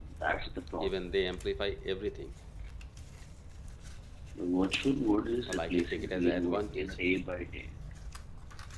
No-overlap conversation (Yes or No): No